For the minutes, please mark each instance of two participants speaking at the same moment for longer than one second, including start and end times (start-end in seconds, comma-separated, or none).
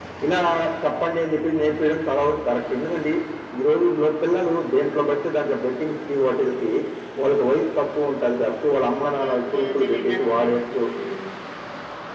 8.9-10.8